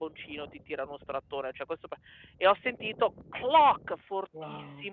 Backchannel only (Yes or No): Yes